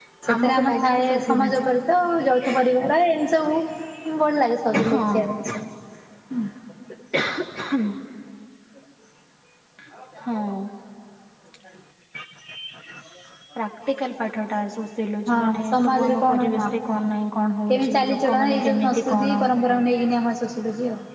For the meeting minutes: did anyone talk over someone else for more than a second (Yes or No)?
Yes